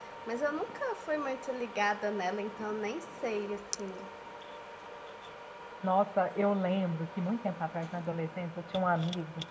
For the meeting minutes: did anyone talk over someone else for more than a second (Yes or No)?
No